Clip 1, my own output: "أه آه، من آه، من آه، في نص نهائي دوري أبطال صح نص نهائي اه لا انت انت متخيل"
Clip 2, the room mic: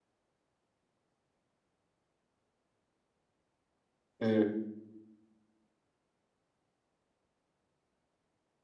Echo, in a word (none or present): none